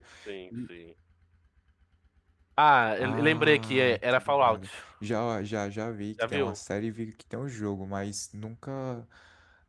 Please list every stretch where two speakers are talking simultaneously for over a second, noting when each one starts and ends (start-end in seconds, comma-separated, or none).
3.0-4.6